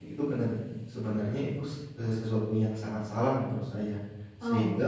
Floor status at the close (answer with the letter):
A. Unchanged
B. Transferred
A